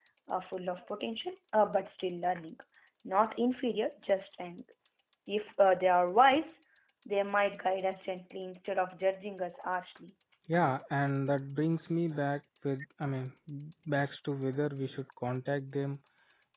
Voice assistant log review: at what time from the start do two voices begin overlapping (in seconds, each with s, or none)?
none